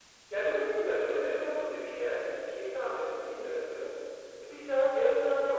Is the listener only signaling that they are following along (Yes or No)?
Yes